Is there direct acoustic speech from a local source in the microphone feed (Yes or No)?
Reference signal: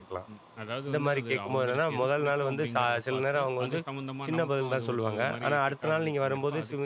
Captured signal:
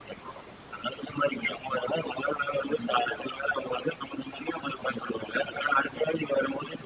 No